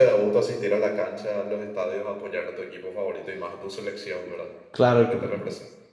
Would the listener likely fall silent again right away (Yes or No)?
No